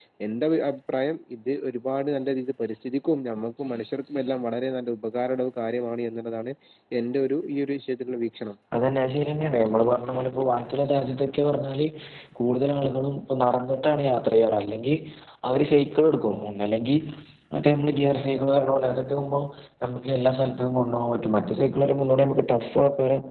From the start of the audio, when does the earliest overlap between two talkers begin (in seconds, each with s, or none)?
none